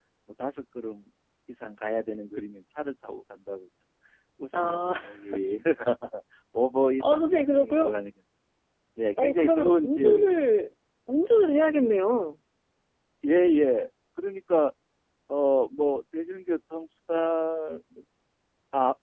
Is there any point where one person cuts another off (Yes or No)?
Yes